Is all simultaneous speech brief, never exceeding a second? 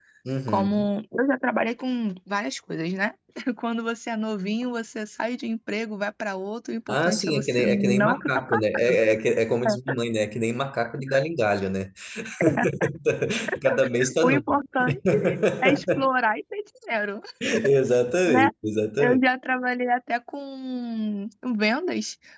No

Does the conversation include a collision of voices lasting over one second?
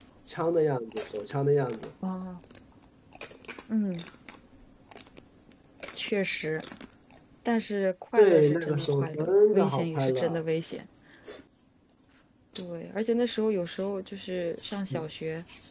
Yes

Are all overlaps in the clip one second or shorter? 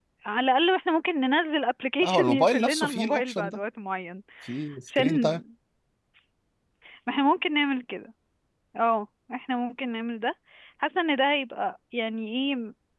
No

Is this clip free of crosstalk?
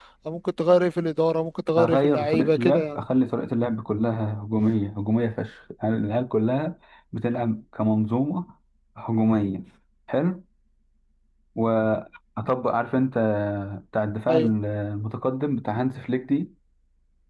No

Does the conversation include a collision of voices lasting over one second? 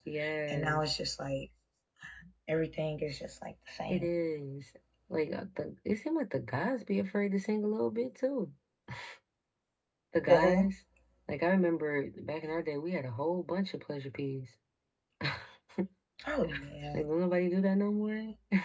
No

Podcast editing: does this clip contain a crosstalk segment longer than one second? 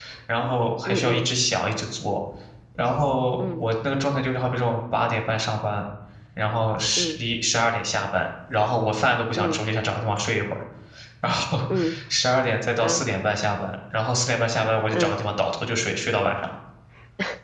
No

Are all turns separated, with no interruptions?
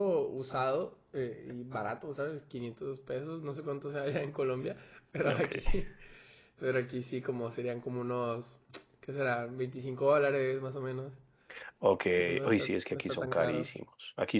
No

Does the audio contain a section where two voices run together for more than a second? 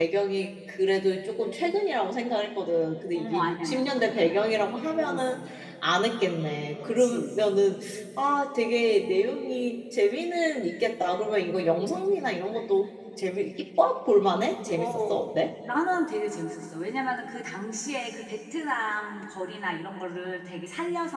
Yes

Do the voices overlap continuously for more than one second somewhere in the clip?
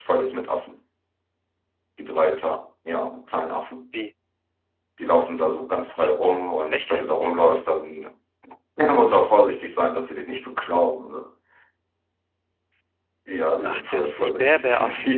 Yes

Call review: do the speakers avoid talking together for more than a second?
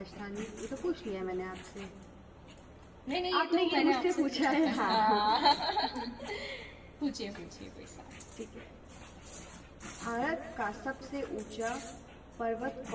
No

